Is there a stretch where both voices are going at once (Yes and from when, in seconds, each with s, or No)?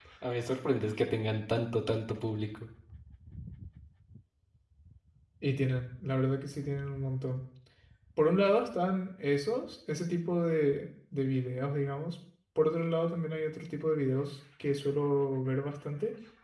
No